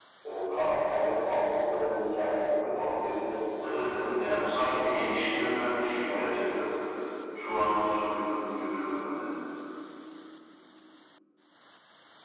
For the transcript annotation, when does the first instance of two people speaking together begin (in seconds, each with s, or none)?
3.6 s